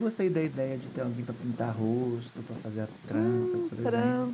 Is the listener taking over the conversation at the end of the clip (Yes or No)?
Yes